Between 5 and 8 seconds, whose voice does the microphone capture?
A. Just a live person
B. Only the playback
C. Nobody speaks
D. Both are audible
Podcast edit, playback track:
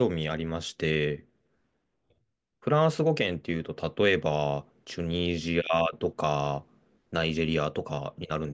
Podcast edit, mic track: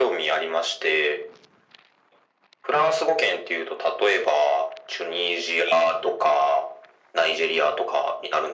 B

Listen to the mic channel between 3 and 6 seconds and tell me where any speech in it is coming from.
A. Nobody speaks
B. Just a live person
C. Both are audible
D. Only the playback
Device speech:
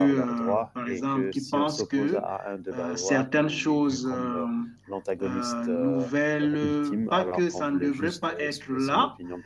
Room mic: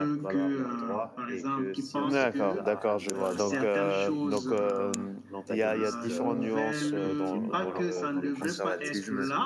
C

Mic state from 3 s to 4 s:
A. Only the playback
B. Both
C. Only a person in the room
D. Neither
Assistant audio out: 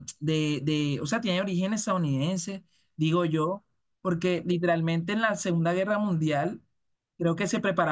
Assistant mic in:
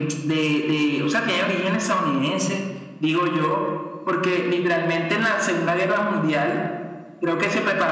A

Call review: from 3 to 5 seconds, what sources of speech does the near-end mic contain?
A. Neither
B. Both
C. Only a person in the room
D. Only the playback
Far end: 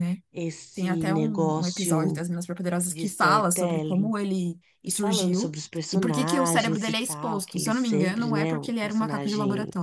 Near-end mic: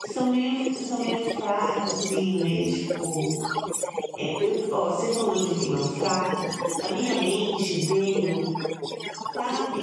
B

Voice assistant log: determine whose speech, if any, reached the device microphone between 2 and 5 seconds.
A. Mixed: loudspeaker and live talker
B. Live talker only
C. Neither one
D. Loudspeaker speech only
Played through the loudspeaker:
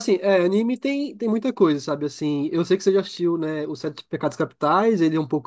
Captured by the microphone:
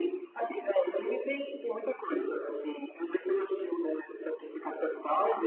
D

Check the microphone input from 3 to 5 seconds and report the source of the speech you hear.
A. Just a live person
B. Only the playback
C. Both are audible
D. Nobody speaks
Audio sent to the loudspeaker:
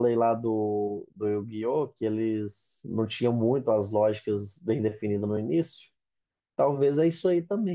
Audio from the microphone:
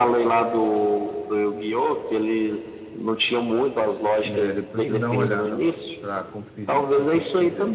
C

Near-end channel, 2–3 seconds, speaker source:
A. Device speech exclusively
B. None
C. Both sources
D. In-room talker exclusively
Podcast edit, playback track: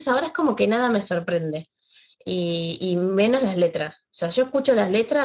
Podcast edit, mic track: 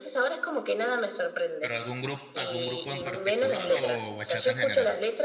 C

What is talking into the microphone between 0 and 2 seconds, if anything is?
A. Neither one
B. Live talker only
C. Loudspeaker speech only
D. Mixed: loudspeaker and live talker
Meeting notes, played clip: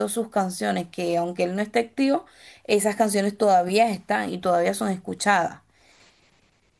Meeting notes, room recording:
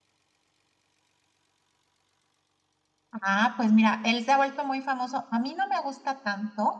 A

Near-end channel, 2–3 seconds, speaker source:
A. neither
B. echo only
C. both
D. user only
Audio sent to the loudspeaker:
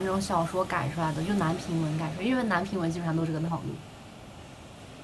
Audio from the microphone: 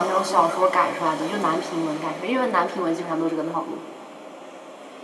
B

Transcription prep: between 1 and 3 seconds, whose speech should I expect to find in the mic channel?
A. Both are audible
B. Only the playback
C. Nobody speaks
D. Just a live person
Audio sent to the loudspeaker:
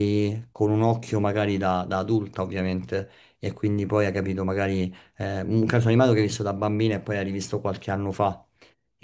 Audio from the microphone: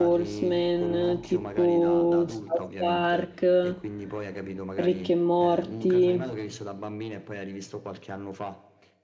A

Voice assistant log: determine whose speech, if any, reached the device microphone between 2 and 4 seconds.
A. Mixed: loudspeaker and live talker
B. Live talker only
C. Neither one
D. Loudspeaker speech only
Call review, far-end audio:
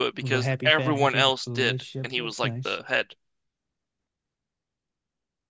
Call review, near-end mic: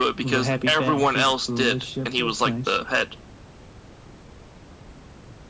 D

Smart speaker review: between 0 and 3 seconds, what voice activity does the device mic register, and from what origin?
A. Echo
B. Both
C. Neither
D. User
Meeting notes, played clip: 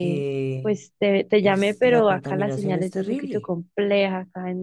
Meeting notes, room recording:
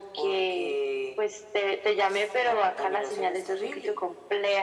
A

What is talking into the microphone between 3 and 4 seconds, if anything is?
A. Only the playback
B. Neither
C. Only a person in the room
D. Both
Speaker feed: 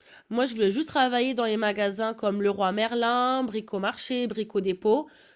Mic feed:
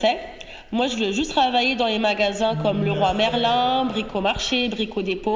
D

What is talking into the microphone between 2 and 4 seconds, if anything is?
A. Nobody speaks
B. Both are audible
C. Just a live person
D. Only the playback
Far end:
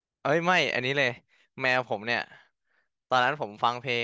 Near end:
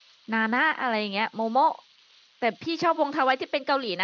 C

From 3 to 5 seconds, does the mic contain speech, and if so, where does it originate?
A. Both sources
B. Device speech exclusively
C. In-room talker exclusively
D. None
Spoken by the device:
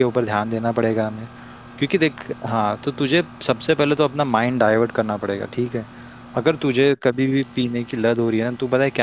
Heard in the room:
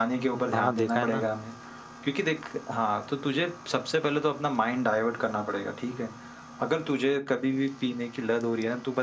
B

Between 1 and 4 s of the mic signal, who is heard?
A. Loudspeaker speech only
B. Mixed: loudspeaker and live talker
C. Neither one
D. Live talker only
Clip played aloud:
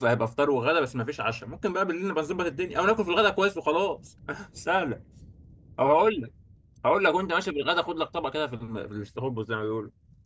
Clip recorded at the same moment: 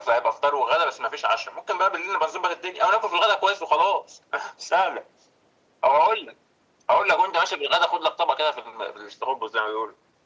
A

